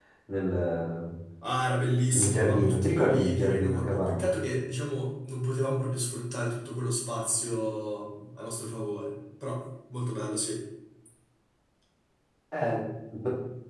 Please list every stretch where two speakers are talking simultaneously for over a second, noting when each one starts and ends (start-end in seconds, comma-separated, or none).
2.1-4.3